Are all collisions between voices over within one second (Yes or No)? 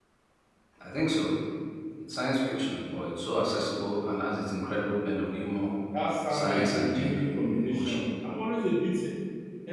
No